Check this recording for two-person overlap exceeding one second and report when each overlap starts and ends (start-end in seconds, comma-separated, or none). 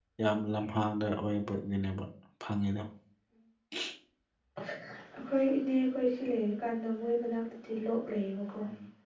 none